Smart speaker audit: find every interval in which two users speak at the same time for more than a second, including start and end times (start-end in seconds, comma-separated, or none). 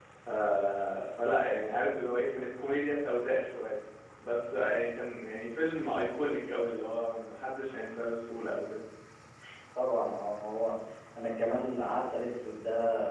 none